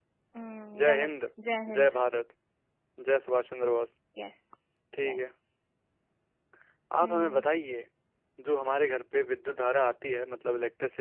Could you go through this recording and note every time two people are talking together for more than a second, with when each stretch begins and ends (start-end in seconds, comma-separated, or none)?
none